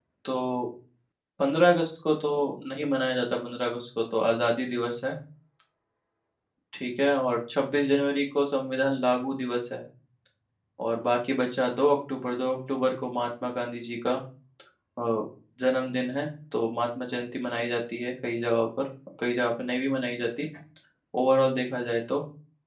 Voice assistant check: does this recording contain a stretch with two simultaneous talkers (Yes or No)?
No